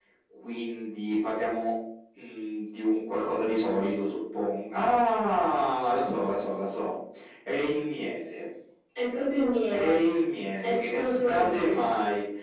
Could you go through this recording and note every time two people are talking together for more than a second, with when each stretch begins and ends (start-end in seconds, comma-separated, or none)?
10.6-11.9